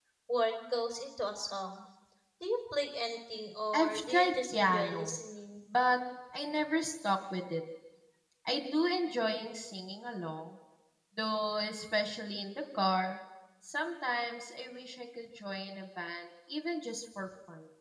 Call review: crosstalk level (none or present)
present